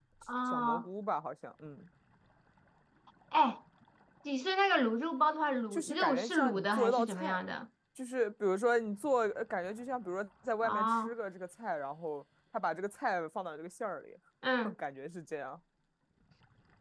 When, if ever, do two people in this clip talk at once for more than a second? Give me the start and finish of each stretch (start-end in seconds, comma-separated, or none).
5.7-7.4